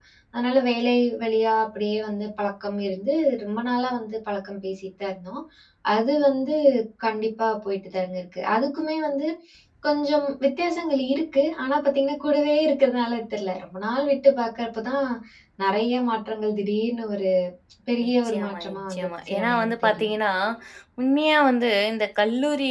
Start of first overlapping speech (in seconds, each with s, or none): 18.3 s